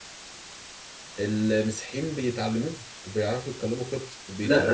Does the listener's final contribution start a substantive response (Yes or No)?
Yes